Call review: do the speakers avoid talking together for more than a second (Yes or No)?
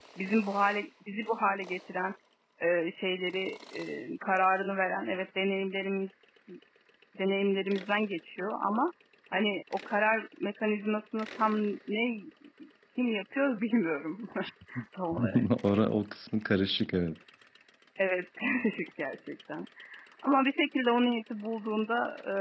Yes